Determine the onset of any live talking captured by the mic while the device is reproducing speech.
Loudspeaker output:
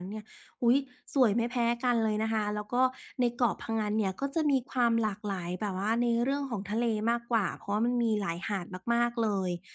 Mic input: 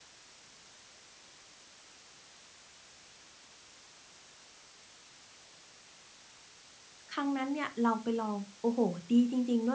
7.1 s

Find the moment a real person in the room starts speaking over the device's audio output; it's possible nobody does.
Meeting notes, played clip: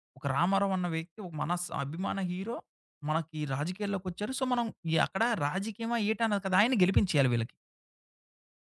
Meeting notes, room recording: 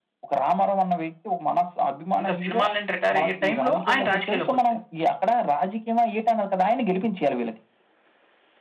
2.2 s

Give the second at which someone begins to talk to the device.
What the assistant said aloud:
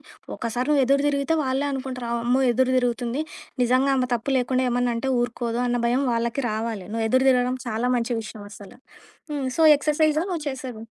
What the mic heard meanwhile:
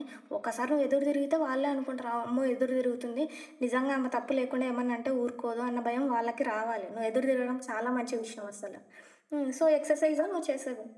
none

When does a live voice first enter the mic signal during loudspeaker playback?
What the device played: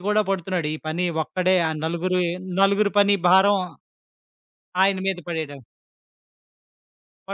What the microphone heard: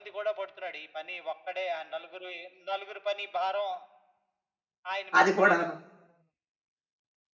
5.2 s

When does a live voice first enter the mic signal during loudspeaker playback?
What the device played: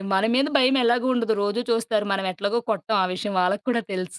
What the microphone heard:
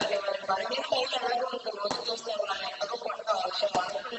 none

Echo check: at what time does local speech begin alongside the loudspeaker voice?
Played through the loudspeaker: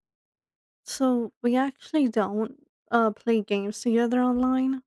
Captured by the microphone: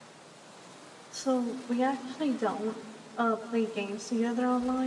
none

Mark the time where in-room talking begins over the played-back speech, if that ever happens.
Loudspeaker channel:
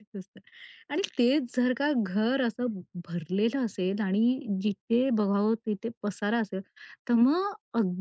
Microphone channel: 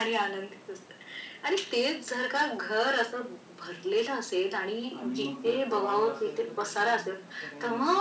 5.0 s

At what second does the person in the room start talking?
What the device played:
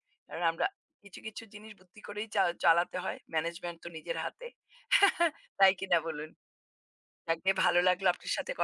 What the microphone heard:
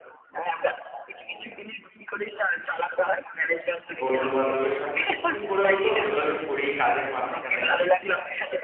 4.0 s

